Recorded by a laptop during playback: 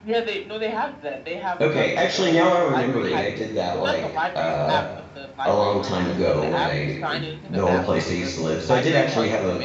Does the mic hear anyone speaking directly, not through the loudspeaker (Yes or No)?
Yes